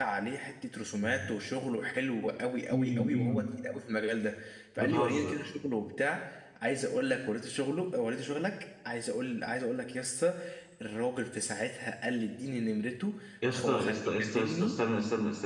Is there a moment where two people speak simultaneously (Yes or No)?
Yes